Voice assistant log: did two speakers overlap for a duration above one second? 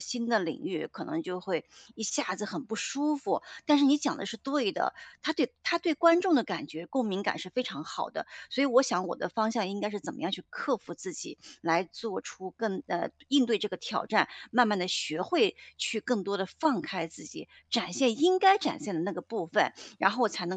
No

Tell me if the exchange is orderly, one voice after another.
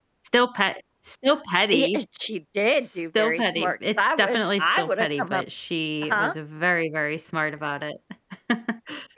No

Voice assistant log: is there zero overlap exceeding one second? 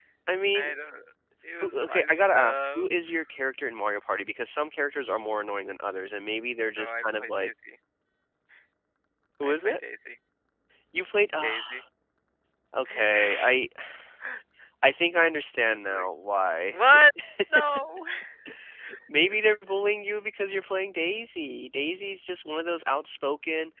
No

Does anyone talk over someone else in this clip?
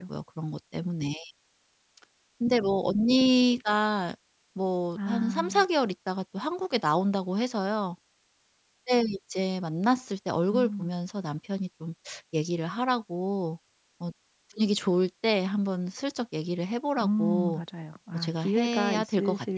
Yes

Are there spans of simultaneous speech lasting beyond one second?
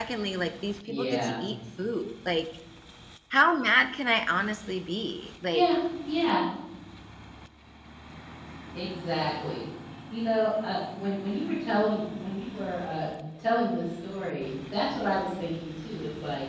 No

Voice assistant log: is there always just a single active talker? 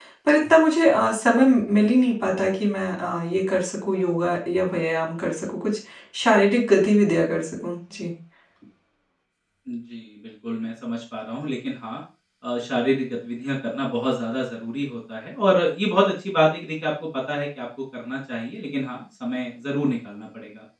Yes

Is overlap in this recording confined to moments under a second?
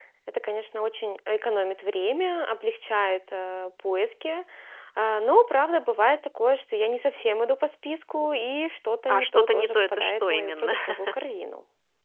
No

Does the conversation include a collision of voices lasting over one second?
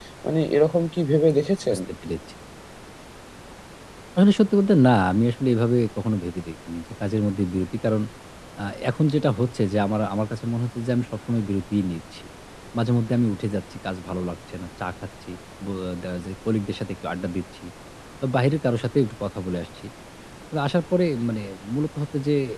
No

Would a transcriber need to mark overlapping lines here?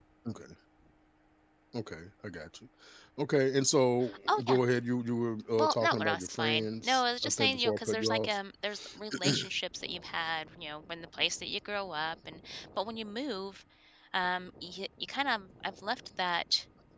Yes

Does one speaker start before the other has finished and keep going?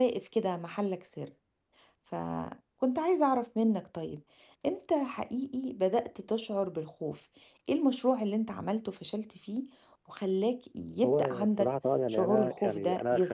Yes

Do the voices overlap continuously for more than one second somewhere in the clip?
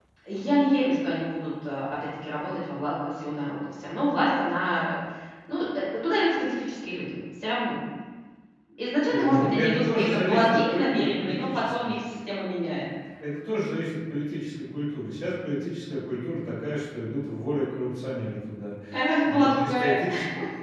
Yes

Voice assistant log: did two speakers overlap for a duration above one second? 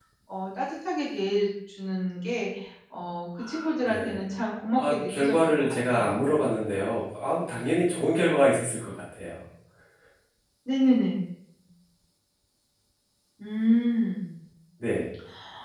Yes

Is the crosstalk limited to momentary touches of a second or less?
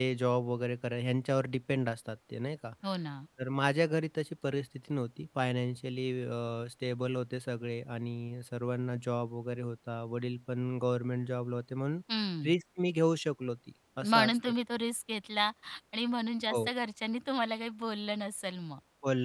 Yes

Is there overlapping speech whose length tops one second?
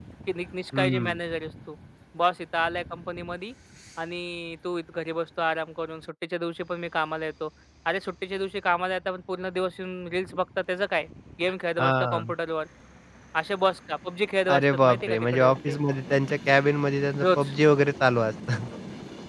Yes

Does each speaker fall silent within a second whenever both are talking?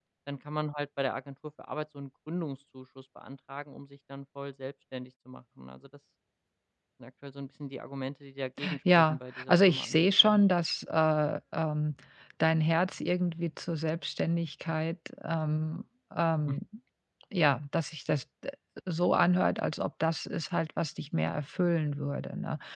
No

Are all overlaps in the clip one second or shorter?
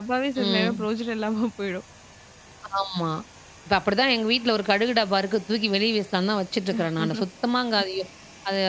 Yes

